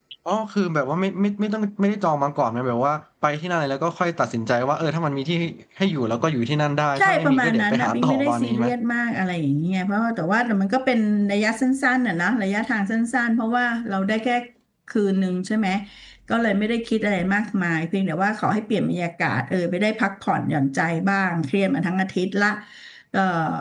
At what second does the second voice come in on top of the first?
7 s

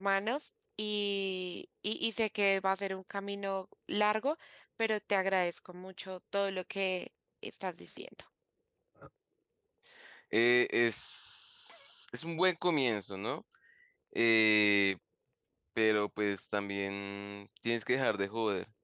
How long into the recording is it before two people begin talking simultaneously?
none

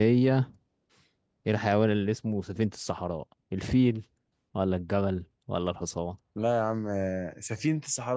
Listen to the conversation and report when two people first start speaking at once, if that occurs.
none

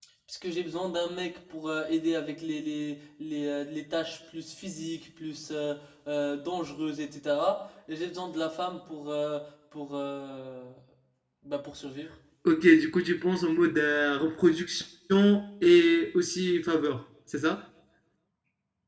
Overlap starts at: none

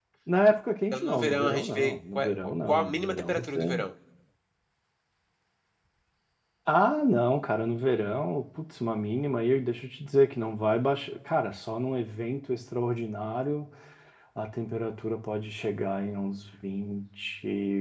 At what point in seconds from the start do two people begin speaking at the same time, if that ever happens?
1 s

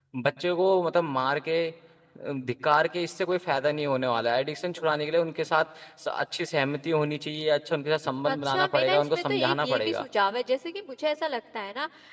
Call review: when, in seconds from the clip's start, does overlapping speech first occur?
8 s

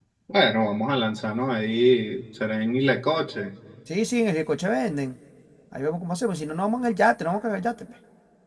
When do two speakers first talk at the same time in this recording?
none

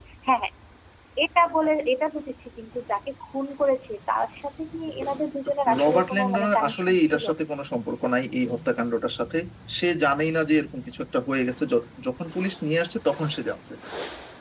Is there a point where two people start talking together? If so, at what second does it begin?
6 s

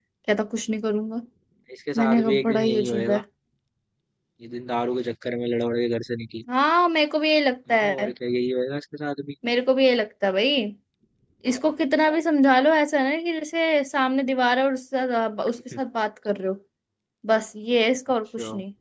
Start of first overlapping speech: 2 s

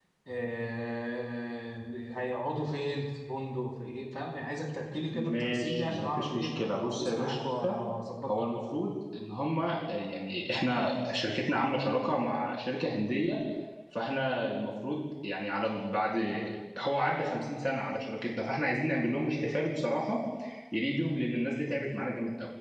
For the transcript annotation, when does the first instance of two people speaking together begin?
5 s

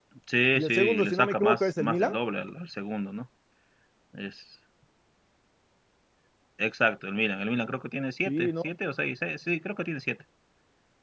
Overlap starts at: 1 s

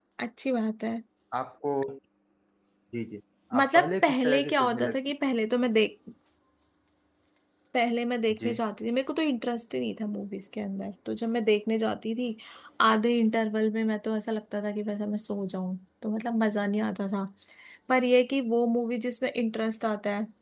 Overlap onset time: 4 s

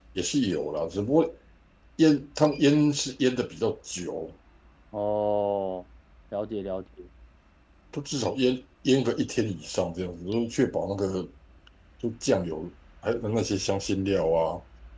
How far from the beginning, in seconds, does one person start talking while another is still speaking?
none

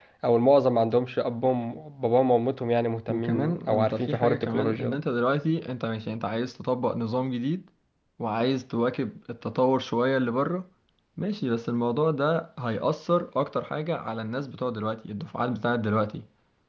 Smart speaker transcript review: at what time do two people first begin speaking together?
3 s

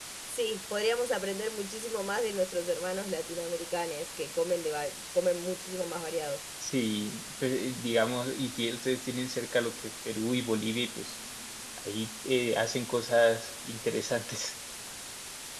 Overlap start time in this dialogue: none

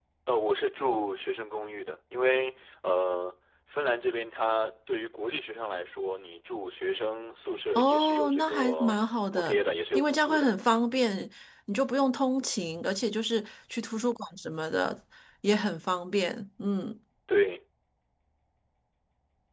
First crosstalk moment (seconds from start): 8 s

